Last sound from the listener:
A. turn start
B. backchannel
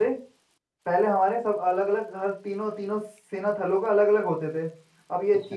B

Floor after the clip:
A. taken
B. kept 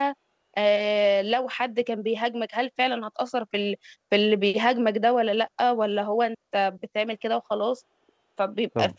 B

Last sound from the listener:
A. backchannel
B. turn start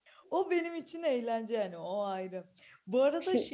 A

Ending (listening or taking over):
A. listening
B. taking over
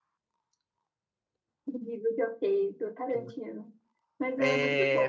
B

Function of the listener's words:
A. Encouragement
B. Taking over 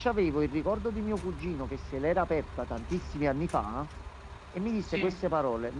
A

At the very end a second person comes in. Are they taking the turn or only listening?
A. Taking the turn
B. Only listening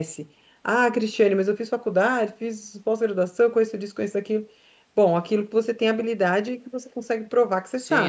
A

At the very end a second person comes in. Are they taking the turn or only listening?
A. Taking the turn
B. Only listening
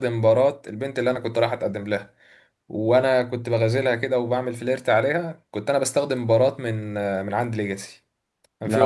B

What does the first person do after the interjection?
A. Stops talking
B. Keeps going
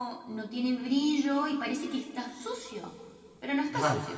A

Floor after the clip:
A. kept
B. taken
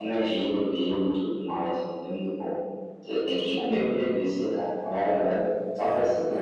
B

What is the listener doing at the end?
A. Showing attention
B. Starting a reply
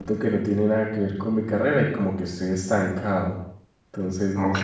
B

